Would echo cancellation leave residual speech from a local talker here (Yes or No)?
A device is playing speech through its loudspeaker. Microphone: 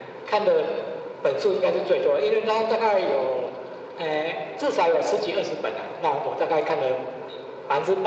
No